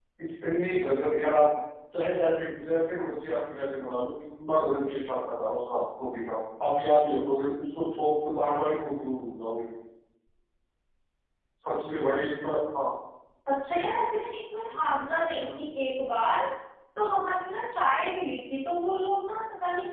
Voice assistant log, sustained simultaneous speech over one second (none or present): none